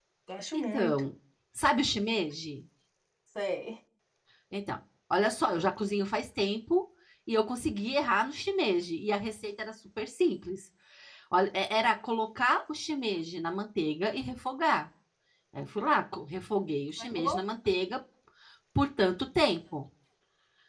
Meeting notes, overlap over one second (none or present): none